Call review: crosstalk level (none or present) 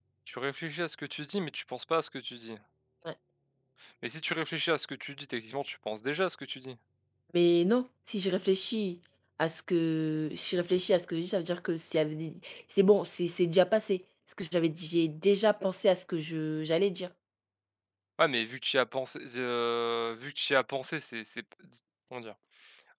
none